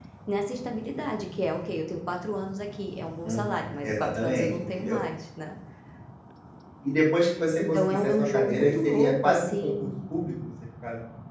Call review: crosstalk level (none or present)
present